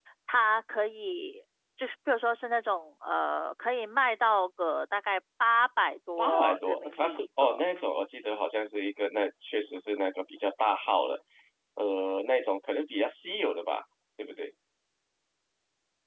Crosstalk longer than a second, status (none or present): present